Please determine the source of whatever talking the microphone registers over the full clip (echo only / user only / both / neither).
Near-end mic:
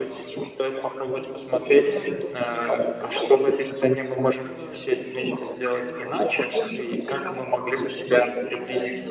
echo only